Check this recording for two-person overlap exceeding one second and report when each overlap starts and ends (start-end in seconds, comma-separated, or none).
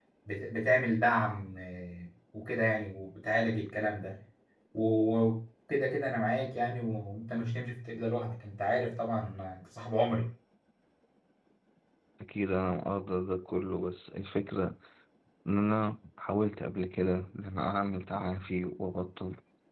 none